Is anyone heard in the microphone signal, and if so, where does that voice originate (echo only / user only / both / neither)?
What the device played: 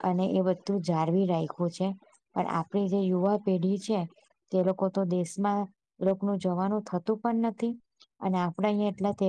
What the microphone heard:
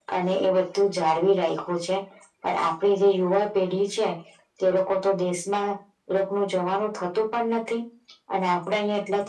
echo only